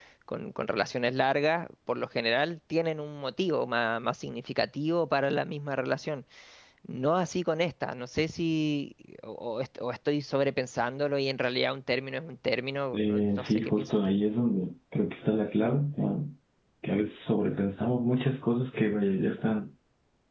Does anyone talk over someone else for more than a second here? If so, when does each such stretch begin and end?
12.9-14.2

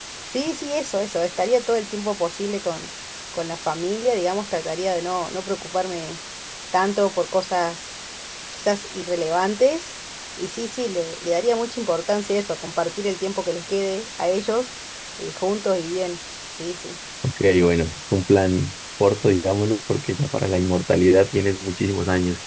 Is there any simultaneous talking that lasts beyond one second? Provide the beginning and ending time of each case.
none

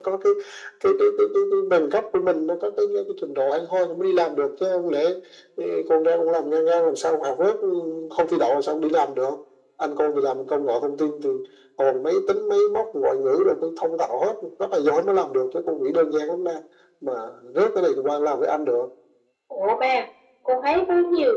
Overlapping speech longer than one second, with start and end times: none

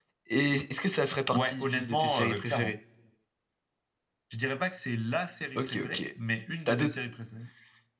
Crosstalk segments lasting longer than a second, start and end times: 1.3-2.7

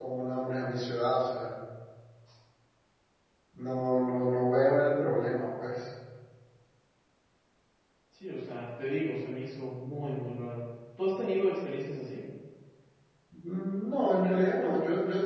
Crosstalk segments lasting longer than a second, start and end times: none

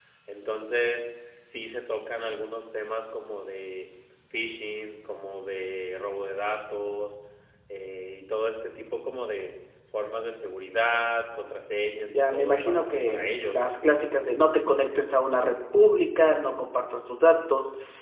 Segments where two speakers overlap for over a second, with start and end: 12.1-13.6

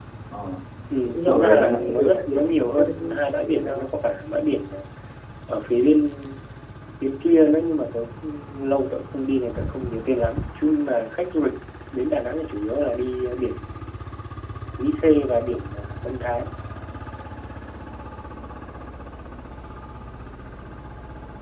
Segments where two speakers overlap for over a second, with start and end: 1.0-3.9

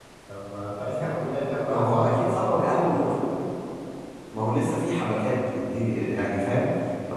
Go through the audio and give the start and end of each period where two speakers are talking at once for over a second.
1.7-3.3

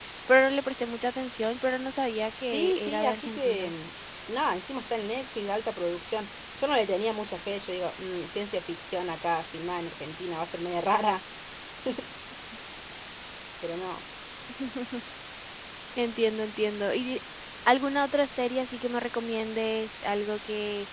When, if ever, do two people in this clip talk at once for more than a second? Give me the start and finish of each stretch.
2.5-3.7

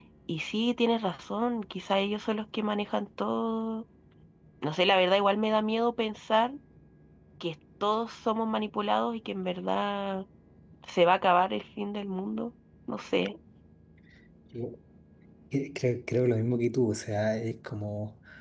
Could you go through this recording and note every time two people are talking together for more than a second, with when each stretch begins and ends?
none

